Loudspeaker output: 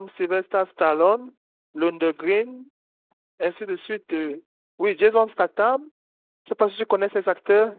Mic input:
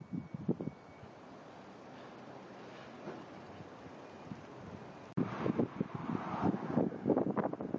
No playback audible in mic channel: Yes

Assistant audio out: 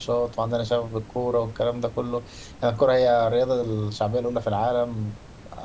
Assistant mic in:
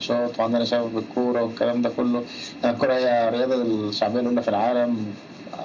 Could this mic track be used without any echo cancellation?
No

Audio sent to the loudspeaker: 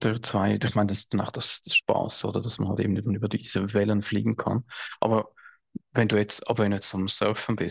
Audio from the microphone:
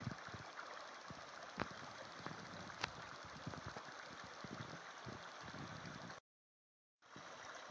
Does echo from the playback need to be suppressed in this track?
No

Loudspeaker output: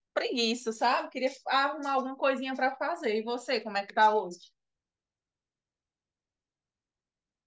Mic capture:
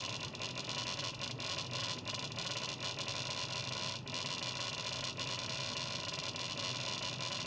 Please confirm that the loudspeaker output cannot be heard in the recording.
Yes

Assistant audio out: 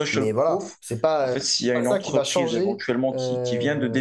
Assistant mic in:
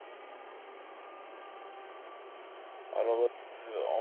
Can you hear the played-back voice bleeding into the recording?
No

